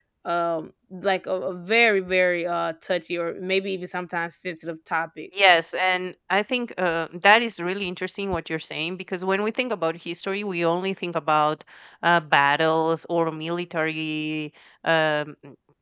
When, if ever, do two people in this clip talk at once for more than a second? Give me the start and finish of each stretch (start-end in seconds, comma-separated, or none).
none